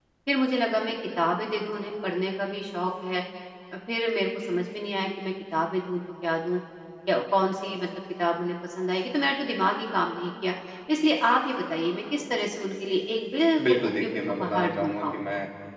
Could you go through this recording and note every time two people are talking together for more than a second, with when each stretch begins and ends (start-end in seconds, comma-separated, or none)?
13.7-15.2